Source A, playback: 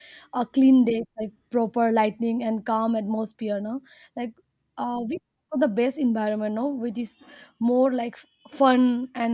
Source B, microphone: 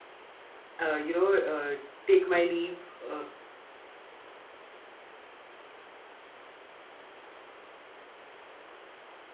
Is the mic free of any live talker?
No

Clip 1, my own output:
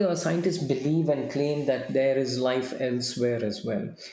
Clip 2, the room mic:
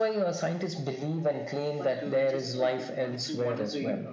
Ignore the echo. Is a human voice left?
Yes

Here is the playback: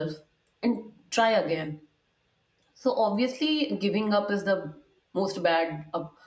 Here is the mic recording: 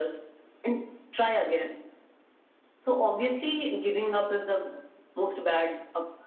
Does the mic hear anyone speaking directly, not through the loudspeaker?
No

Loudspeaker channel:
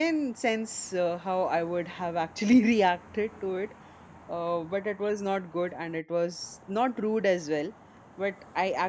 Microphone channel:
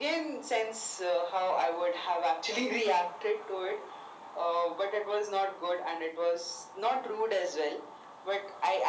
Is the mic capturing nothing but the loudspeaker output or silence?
Yes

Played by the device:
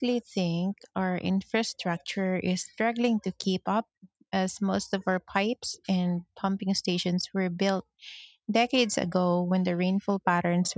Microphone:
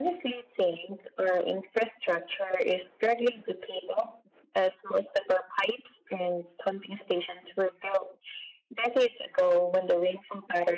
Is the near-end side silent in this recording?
Yes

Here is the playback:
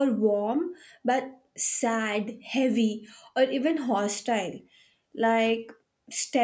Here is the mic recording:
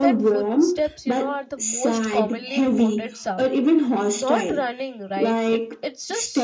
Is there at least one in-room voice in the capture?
Yes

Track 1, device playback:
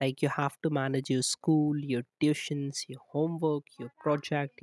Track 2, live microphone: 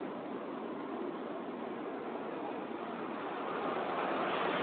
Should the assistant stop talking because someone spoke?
No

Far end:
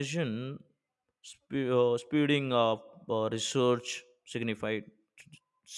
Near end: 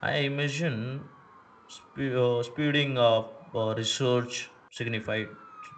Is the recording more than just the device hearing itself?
No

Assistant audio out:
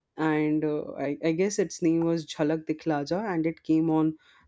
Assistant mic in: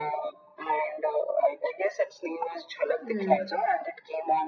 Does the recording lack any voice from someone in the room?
No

